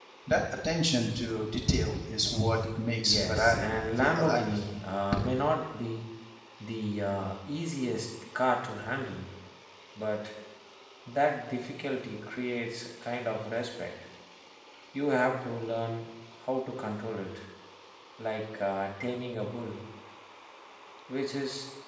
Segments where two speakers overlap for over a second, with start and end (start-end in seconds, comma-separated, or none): 3.0-4.6